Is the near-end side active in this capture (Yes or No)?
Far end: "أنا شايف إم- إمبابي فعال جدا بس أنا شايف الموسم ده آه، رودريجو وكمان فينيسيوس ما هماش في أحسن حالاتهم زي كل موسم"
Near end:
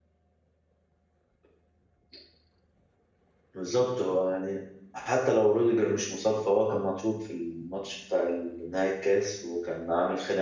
Yes